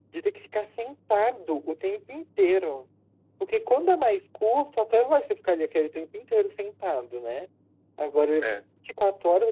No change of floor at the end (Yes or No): Yes